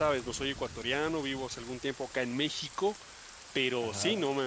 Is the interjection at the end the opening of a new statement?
No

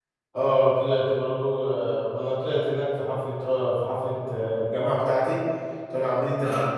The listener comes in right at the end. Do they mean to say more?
No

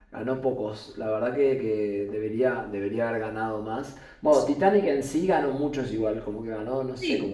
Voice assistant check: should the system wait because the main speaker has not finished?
No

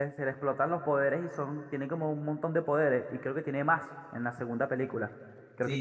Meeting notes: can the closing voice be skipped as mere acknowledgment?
No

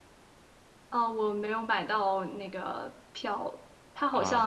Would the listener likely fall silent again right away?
Yes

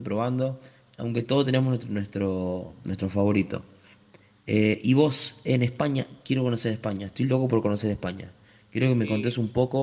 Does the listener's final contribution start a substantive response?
No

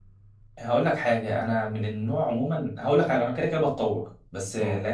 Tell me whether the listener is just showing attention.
Yes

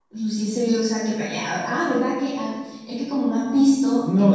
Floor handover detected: Yes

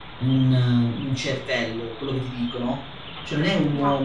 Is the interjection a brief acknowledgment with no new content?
Yes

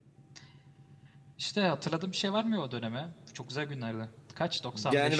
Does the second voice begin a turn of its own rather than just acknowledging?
Yes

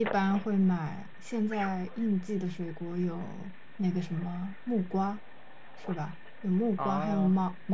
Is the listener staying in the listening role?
Yes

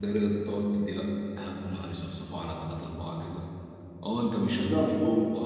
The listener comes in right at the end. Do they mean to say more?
No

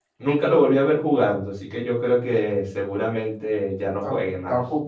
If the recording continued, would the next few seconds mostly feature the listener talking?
Yes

